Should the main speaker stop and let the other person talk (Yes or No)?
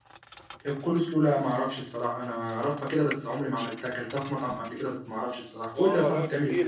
Yes